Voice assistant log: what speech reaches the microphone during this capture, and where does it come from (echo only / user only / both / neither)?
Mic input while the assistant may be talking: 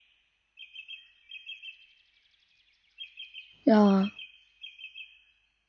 user only